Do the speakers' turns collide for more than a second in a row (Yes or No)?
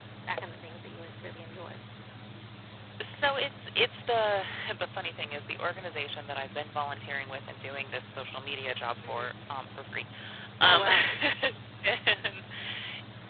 No